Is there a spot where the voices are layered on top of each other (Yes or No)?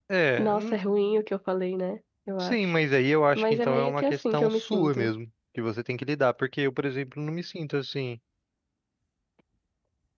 Yes